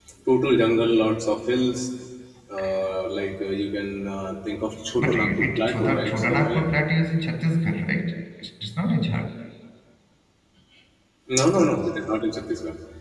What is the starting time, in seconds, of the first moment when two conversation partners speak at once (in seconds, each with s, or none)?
5.0 s